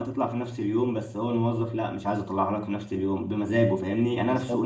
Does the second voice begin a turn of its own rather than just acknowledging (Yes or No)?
No